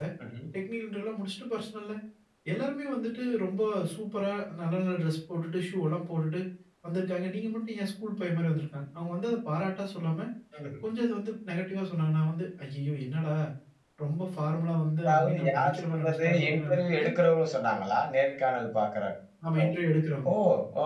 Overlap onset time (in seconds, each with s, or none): 15.1 s